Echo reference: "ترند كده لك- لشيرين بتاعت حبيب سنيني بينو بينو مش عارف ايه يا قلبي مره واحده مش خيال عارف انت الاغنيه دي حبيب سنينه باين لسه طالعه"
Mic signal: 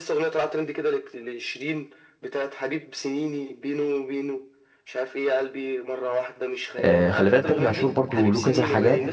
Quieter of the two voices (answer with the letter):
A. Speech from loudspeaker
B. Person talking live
A